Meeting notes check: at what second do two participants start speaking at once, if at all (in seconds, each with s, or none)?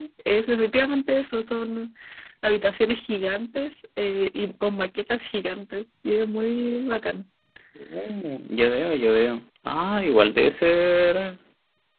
none